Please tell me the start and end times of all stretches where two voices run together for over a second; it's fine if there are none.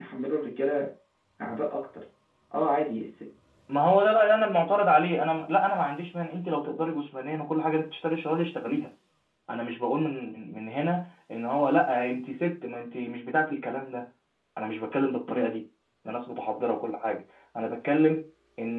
none

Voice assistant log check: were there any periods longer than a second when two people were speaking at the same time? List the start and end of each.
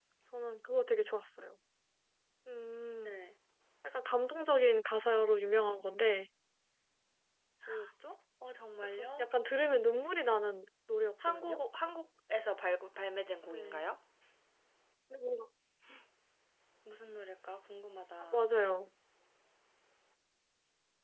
none

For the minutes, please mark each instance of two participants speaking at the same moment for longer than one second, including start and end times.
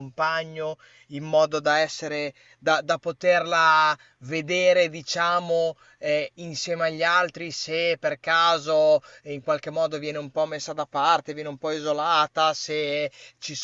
none

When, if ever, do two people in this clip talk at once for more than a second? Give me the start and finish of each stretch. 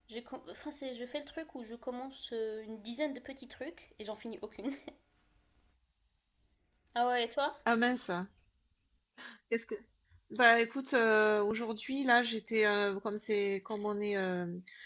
none

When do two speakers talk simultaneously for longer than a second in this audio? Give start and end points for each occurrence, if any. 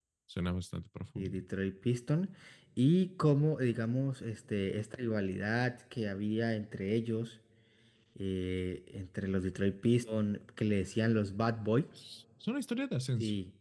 none

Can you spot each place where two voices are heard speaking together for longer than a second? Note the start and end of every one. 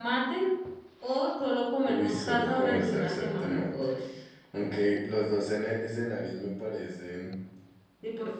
1.9-3.7

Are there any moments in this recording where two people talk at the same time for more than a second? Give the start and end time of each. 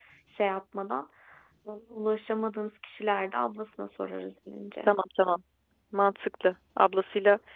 none

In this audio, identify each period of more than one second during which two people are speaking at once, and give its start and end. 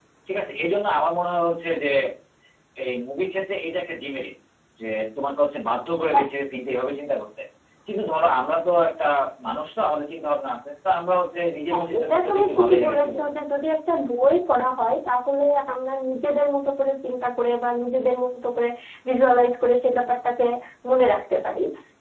11.7-13.3

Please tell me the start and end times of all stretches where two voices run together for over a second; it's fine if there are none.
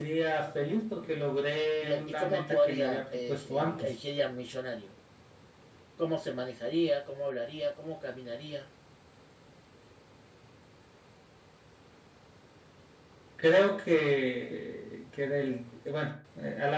1.8-4.0

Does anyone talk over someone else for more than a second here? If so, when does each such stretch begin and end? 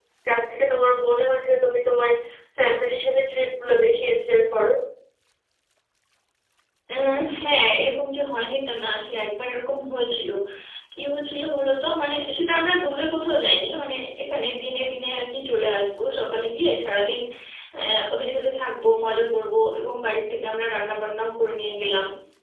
none

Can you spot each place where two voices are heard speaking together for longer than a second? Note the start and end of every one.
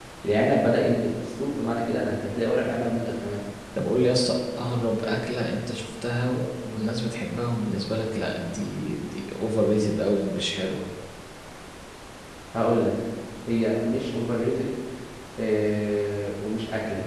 none

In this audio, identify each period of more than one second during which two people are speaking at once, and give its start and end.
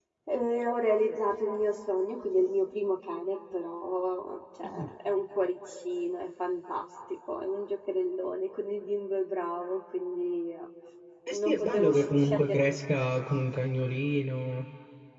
11.4-12.6

